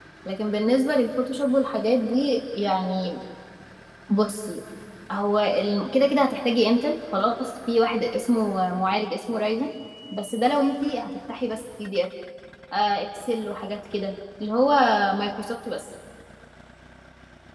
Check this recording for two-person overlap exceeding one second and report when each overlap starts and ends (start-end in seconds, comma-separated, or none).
none